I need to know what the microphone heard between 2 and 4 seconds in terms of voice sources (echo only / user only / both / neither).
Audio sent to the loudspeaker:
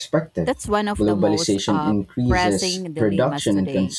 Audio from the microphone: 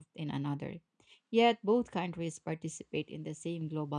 user only